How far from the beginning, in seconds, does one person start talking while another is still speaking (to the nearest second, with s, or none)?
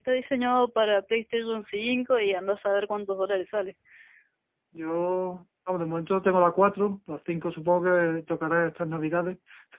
none